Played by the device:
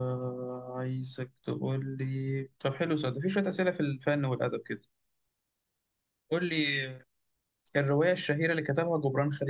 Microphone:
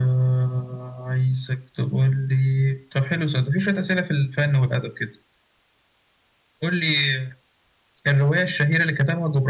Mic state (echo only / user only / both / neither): echo only